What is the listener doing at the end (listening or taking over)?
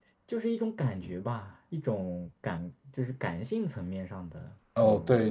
taking over